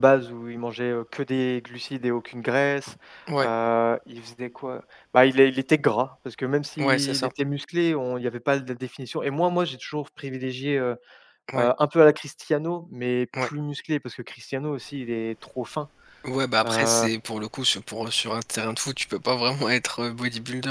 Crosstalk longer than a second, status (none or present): none